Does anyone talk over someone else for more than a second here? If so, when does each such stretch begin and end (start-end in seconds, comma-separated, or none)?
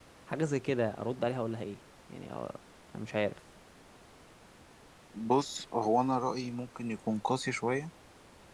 none